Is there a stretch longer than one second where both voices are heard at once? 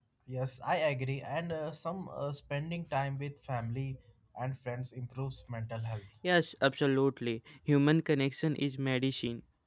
No

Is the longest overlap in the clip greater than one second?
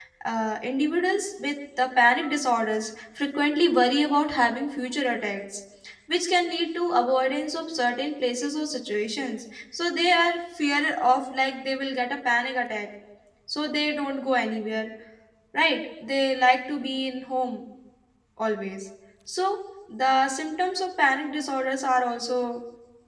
No

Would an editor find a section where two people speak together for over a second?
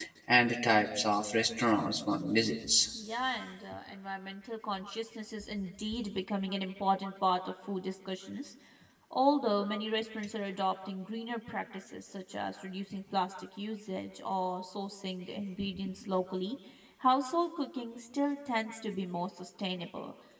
No

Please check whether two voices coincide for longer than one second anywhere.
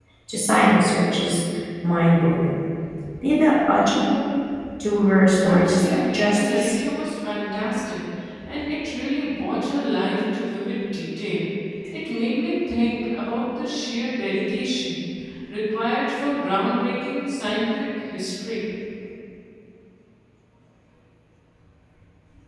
Yes, from 5.4 s

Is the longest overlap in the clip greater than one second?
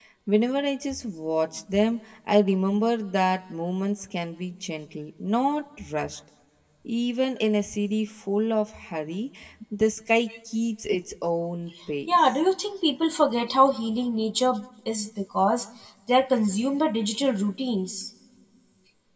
No

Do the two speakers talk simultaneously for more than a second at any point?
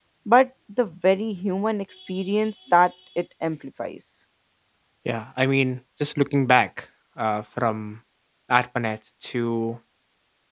No

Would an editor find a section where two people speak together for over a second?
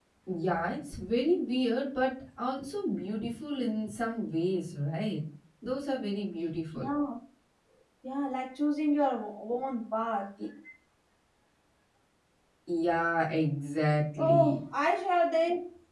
No

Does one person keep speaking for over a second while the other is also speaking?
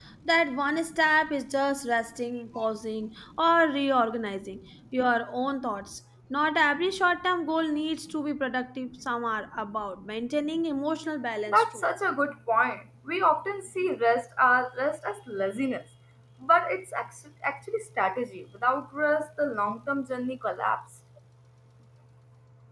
No

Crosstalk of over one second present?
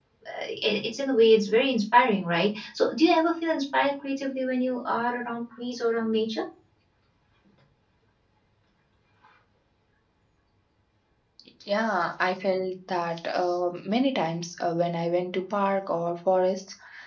No

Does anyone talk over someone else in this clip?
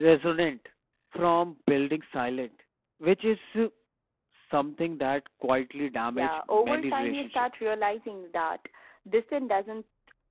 Yes, from 6.1 s

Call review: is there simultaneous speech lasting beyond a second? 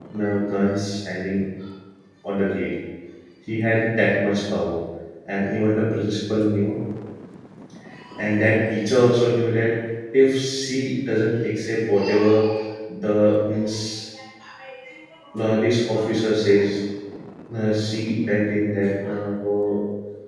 No

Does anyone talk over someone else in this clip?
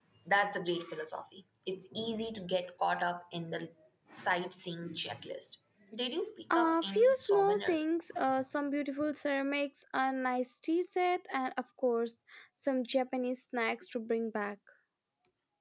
Yes, from 6.5 s

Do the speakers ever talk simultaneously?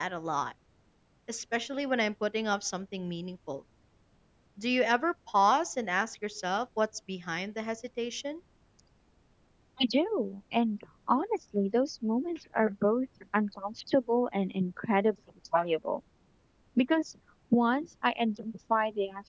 No

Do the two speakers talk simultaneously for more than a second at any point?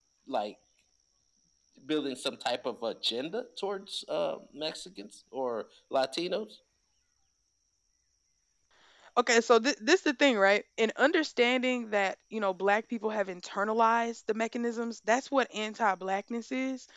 No

